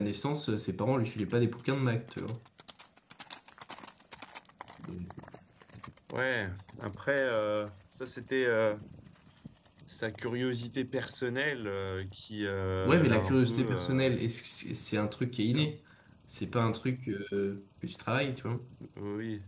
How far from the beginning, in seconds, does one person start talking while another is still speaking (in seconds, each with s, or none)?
12.8 s